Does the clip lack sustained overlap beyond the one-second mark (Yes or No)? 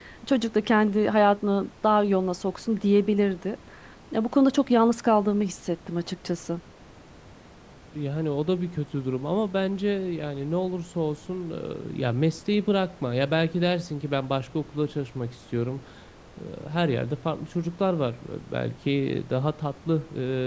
Yes